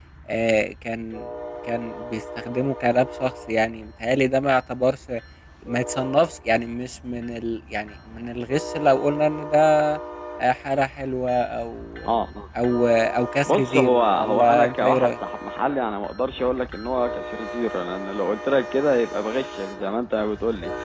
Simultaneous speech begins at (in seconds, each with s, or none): 13.5 s